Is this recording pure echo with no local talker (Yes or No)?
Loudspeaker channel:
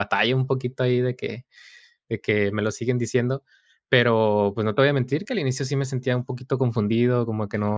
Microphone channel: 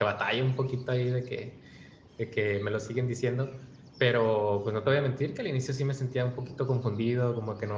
Yes